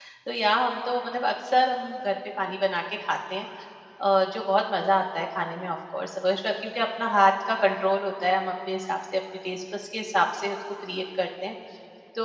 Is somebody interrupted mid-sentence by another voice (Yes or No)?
No